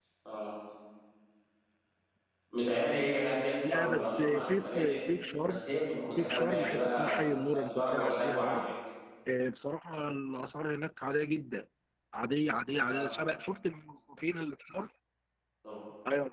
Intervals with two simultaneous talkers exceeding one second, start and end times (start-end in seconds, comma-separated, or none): 3.6-5.0, 6.2-8.7